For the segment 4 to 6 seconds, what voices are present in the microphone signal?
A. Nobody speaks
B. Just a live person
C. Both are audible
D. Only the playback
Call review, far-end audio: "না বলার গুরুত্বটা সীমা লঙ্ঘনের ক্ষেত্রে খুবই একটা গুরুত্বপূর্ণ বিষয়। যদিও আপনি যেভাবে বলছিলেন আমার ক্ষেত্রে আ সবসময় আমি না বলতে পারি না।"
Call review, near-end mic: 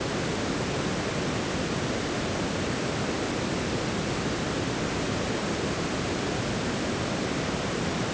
A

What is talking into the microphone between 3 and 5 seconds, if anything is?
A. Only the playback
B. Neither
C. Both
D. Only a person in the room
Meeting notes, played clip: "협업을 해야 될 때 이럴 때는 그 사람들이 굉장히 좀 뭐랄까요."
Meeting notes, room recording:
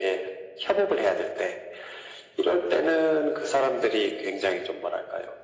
A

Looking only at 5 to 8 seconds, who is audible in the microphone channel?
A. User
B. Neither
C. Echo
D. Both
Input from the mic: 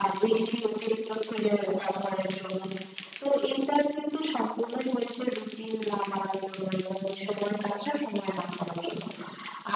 C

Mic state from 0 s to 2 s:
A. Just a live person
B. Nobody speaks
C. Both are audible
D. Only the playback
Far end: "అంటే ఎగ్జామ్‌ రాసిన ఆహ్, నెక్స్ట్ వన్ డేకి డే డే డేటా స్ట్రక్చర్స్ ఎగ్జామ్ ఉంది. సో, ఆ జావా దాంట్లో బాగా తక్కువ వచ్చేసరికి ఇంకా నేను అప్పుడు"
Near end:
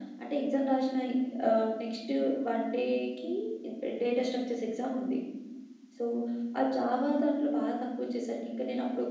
D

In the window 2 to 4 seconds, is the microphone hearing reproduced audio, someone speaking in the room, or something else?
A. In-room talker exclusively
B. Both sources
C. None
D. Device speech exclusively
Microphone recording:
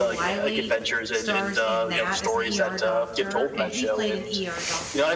B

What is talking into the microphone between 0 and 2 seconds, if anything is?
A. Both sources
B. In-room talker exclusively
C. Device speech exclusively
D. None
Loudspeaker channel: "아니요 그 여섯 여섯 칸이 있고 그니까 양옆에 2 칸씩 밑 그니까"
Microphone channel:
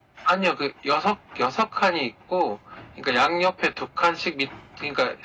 C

